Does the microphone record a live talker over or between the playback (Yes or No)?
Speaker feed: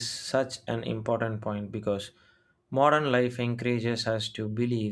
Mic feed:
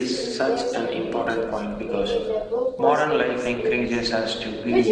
Yes